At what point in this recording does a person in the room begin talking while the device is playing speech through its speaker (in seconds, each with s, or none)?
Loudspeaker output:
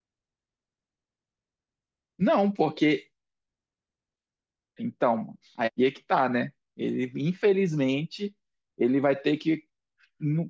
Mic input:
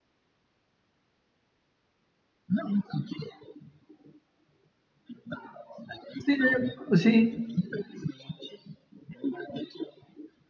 6.2 s